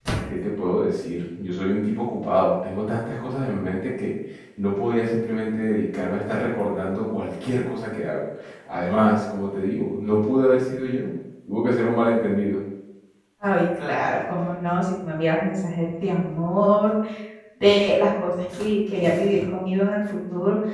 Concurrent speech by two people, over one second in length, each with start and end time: none

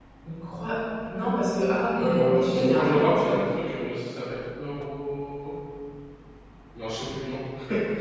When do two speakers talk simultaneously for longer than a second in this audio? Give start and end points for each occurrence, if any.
1.9-3.4

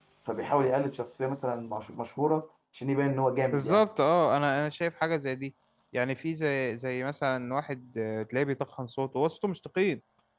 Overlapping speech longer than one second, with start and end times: none

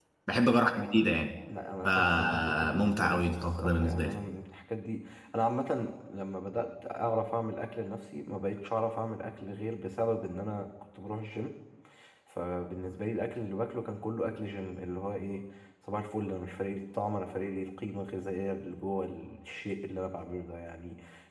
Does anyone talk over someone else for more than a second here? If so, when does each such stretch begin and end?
1.8-4.2

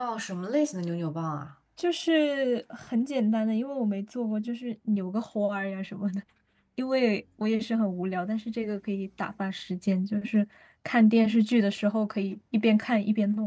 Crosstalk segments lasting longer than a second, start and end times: none

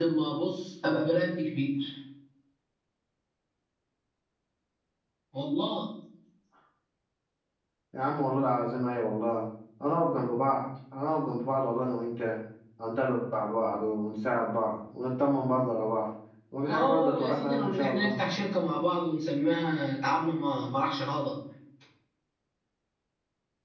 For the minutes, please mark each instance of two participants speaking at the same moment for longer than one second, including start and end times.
16.7-18.2

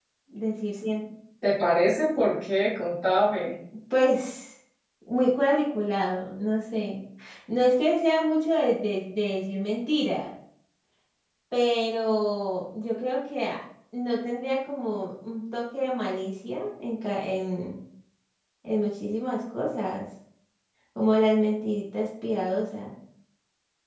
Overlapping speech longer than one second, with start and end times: none

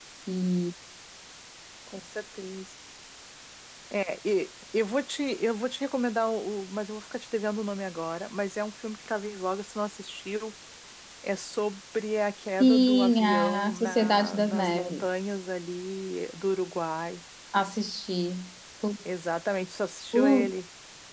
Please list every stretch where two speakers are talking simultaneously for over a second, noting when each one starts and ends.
12.6-15.1

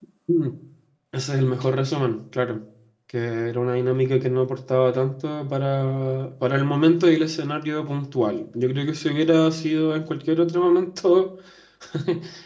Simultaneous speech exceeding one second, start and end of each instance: none

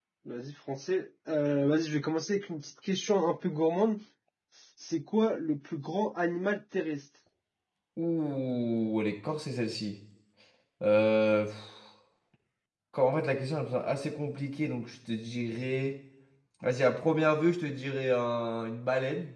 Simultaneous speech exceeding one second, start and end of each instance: none

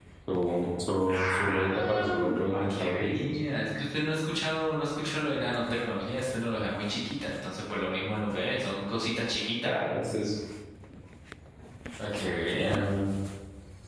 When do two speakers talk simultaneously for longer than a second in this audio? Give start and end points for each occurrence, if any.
1.1-3.4

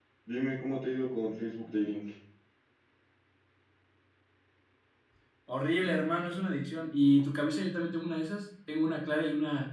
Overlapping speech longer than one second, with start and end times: none

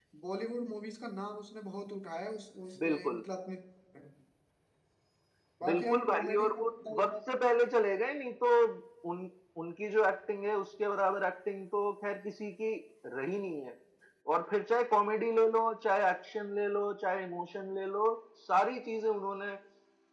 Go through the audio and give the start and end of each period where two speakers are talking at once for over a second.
5.7-7.1

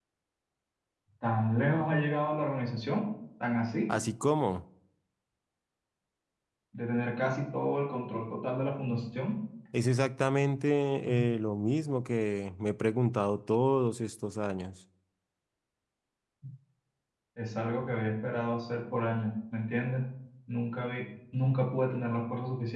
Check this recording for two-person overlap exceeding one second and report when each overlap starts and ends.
none

